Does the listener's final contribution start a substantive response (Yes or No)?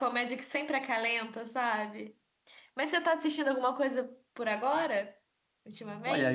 Yes